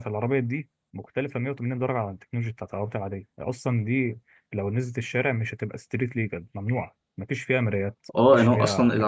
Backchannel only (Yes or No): No